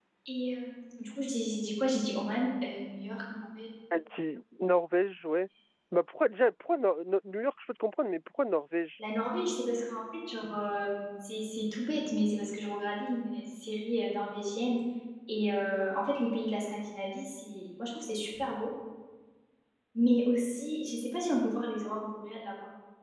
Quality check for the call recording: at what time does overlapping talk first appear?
none

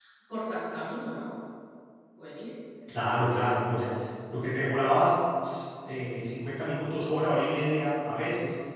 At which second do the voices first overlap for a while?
none

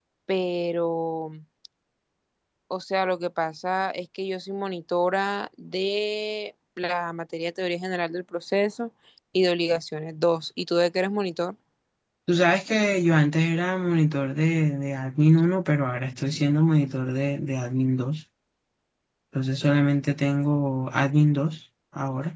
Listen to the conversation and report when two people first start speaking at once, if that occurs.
none

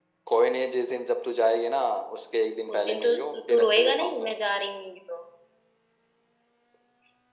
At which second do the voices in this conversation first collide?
3 s

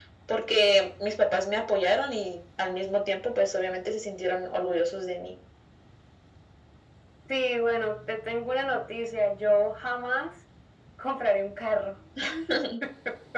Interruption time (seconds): none

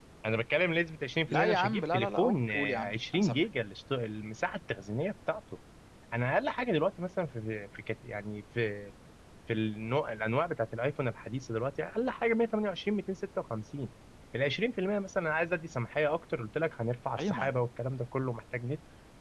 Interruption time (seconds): 1 s

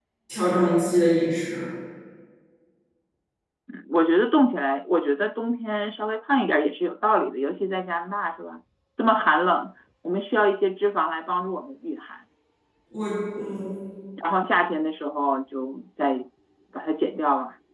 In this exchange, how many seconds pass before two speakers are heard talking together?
none

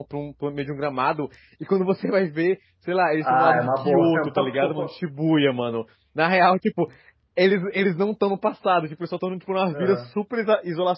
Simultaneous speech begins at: 3 s

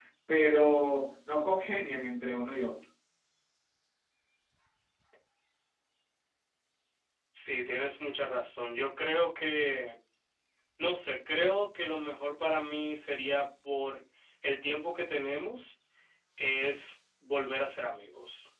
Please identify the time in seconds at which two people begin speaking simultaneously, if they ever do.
none

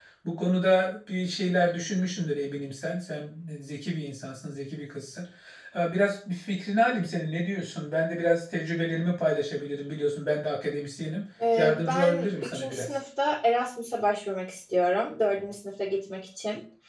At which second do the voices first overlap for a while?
11 s

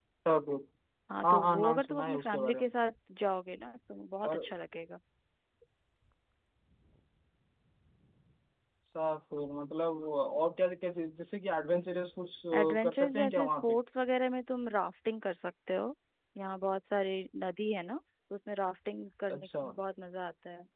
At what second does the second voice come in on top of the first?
1 s

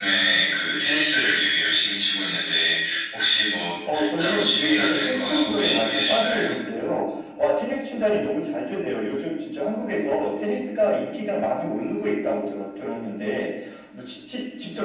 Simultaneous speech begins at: 4 s

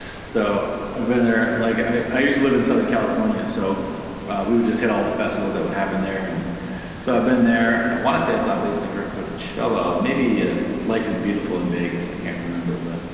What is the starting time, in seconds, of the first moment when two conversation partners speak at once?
none

